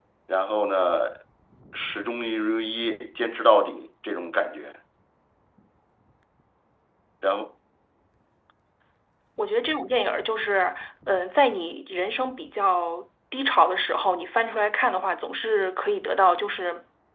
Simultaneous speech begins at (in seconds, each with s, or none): none